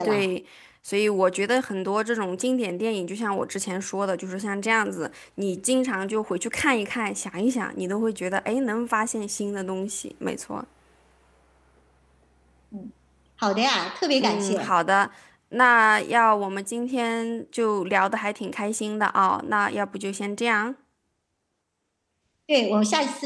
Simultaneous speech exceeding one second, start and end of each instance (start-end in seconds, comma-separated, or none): none